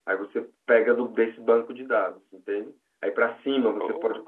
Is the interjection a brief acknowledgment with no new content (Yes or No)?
Yes